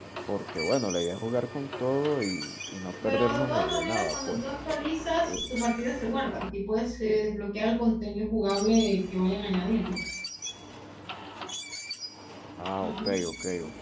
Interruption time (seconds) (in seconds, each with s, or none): 3.0 s